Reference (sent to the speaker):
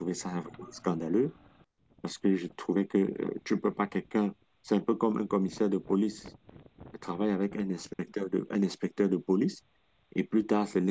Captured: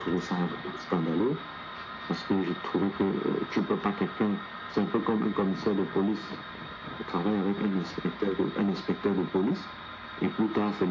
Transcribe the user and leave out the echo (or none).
none